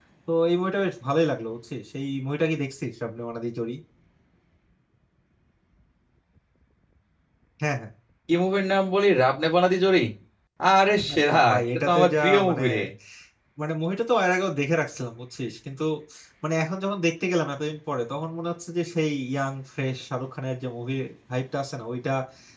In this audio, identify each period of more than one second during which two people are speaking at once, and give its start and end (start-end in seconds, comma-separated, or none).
11.1-12.6